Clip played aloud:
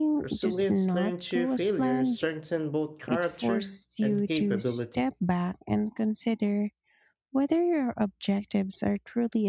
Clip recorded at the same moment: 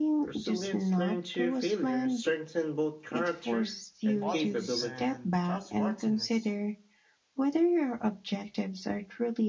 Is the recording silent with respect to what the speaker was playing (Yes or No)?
No